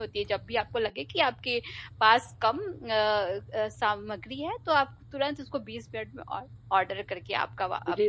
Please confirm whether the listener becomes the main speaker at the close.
Yes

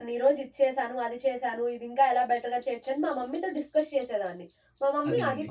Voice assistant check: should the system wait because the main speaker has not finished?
Yes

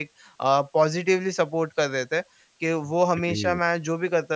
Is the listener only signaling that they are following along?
Yes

